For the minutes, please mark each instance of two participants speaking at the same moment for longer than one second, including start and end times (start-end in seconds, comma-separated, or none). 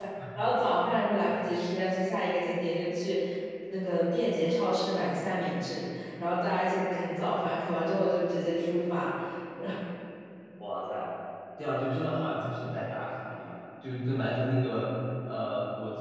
none